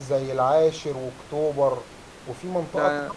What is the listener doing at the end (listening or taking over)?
listening